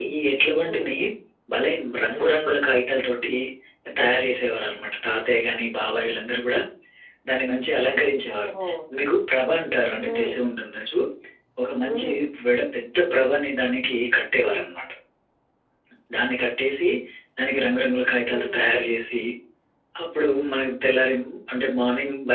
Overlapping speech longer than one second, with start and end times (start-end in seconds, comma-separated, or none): none